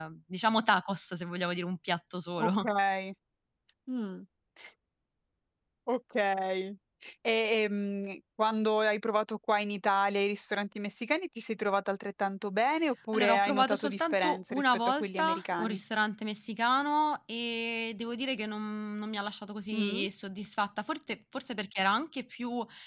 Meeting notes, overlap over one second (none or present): present